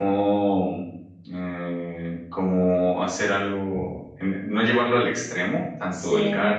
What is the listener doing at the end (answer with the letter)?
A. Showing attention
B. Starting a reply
A